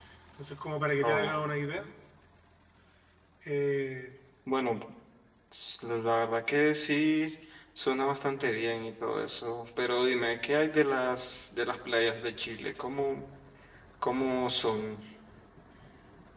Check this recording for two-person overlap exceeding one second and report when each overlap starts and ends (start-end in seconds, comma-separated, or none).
none